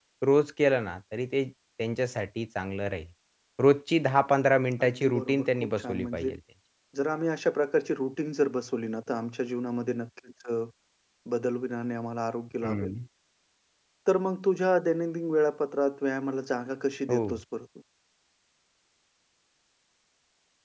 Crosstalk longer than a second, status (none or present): present